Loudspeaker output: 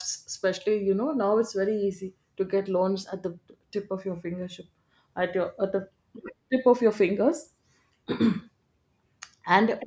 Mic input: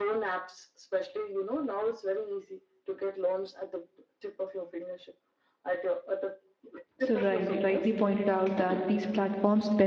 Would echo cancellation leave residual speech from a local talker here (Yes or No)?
Yes